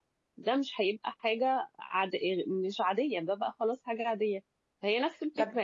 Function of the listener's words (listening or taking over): listening